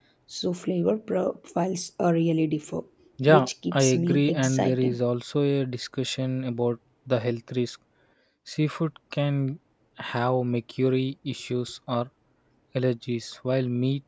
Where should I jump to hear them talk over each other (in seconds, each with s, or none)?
3.3 s